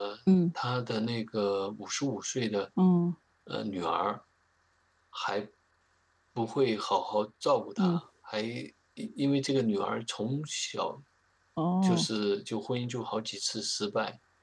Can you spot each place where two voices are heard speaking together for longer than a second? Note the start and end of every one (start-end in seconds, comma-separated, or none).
none